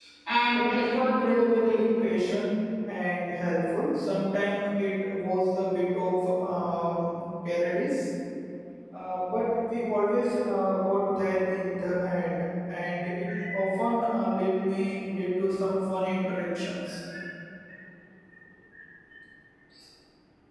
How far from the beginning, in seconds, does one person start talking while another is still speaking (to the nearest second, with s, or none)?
1 s